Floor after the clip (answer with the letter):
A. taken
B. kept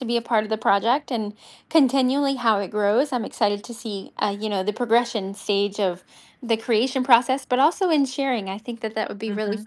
A